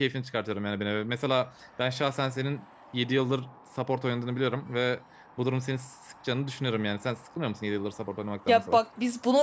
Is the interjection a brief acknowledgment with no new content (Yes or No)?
No